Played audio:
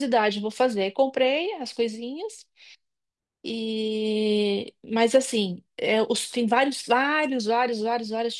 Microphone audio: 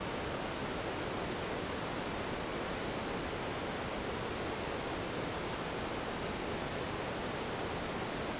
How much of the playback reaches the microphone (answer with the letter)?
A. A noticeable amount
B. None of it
B